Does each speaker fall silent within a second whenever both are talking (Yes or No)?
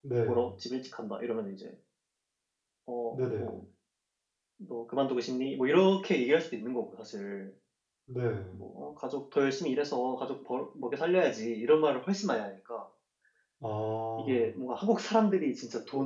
Yes